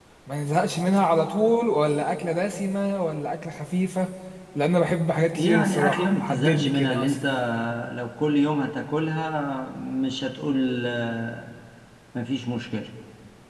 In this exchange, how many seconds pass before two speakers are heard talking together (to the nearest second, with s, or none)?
5 s